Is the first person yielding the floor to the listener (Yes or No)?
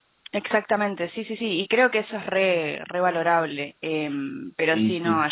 No